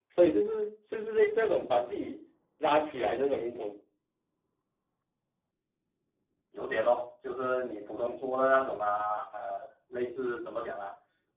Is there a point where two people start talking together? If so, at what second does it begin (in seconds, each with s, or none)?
none